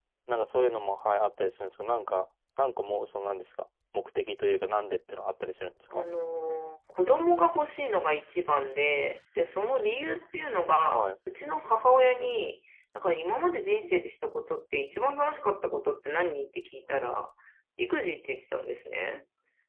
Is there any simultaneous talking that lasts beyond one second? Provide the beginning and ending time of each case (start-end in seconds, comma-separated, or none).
none